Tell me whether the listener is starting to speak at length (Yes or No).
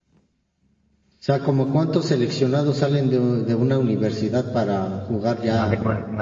Yes